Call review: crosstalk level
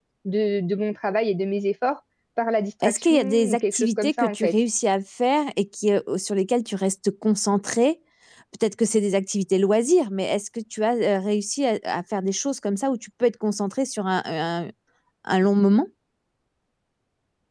present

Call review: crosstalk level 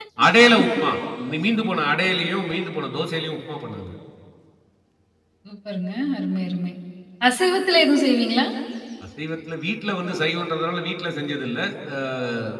none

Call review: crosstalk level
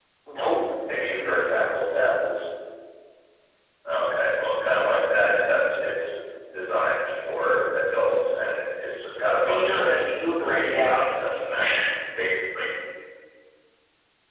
present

